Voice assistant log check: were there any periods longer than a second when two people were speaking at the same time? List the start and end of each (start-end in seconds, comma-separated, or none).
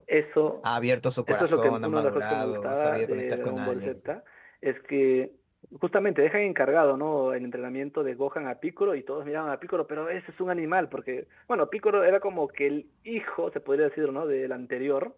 1.3-4.0